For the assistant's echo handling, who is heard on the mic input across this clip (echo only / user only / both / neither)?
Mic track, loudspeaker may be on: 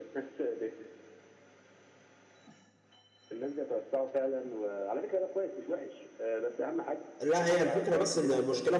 both